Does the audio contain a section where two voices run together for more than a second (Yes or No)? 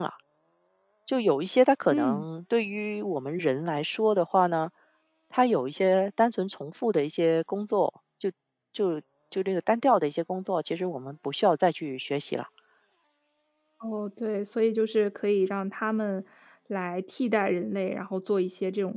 No